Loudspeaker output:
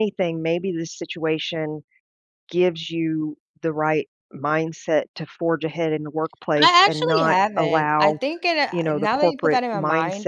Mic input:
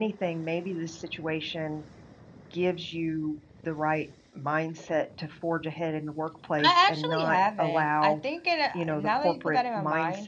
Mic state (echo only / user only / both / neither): echo only